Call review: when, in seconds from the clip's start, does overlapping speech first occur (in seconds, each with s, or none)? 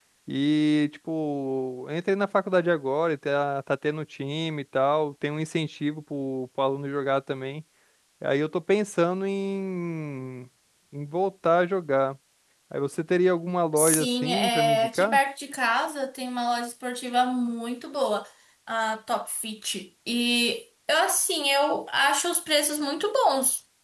13.8 s